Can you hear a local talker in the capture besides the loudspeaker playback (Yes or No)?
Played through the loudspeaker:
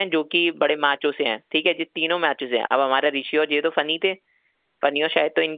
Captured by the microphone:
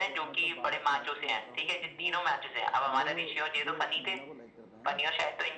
Yes